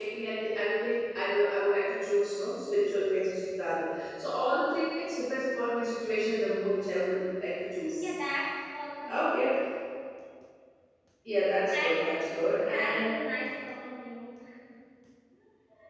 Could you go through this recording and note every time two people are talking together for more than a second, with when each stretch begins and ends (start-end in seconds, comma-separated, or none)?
11.8-13.2